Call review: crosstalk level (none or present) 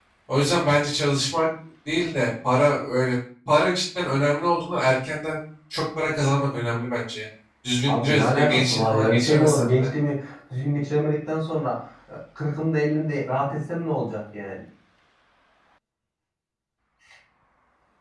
present